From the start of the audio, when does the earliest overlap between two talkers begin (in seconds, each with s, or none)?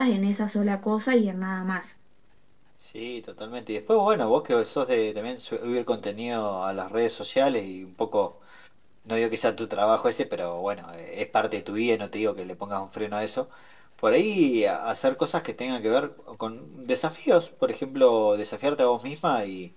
none